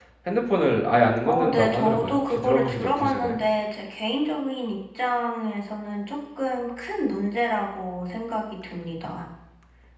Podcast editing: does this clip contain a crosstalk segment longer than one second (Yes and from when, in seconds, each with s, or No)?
Yes, from 1.2 s